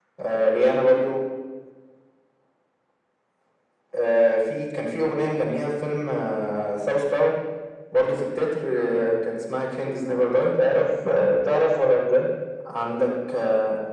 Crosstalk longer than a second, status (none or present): none